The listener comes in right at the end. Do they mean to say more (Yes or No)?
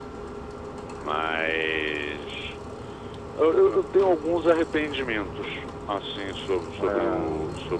No